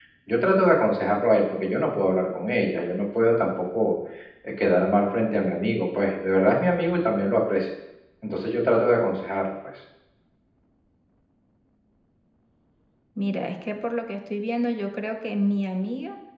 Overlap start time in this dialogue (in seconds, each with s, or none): none